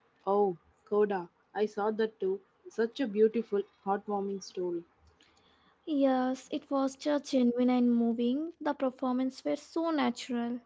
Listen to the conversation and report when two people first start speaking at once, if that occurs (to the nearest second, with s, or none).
none